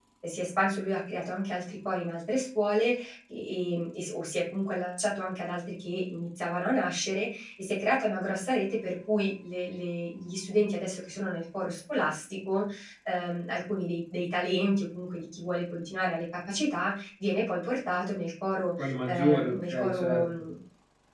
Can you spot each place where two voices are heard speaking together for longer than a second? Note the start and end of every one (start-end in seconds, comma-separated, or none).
18.8-20.2